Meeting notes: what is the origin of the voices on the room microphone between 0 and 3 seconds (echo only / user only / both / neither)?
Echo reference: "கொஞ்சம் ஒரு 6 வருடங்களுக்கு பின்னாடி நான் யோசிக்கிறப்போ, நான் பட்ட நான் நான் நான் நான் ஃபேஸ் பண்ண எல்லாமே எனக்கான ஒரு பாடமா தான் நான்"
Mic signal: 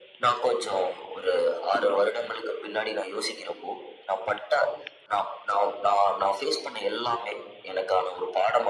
echo only